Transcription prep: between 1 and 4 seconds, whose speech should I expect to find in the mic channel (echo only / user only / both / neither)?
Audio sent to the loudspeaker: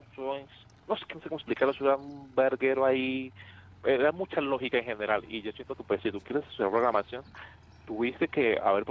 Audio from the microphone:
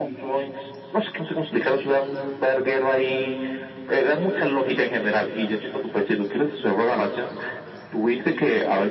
echo only